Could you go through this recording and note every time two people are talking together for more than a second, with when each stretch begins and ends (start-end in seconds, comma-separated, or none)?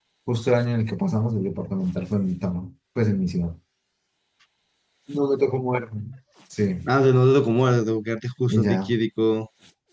none